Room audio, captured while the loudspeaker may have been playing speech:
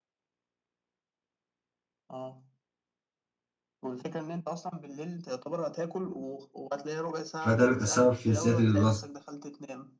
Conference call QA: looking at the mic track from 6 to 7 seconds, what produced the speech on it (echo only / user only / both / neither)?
echo only